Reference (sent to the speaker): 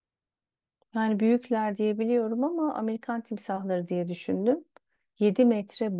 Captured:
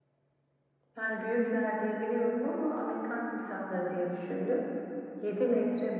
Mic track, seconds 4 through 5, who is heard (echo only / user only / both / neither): echo only